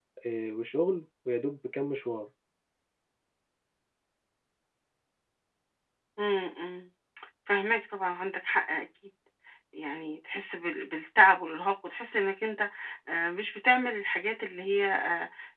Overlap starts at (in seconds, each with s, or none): none